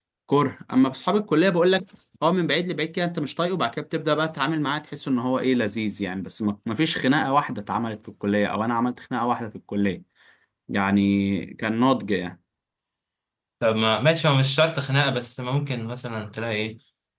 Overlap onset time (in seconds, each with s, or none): none